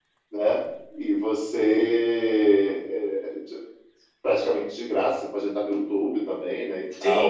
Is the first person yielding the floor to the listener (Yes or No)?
Yes